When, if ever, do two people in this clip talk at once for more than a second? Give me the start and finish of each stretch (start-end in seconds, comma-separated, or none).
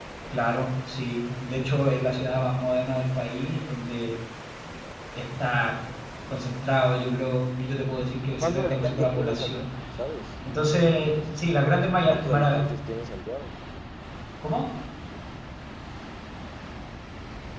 8.4-9.6